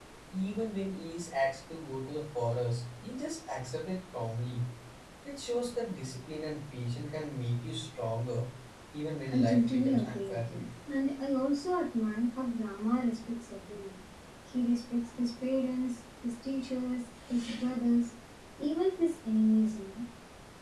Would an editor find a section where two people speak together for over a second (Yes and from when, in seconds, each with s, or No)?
Yes, from 9.3 s